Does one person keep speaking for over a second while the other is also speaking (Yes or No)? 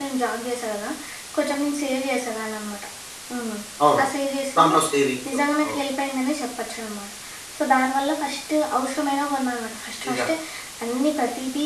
No